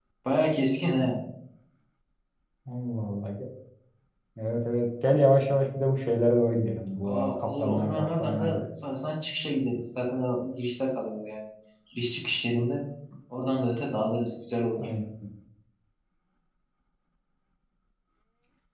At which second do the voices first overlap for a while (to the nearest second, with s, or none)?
7 s